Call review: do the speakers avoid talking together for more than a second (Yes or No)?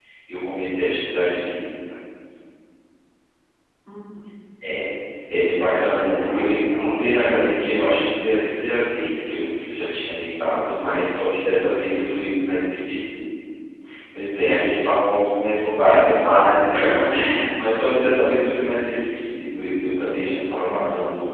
No